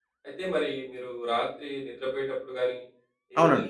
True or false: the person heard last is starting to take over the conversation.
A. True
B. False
B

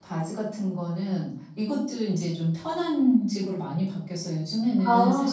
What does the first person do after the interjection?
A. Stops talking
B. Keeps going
B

